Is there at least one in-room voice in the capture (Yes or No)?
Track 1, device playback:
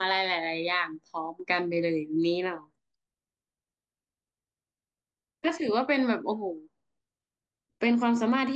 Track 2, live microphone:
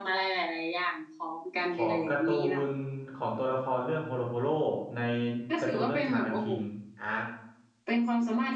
Yes